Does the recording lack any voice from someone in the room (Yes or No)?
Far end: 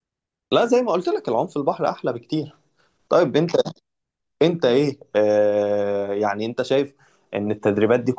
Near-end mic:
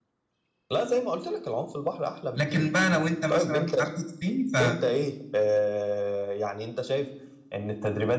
No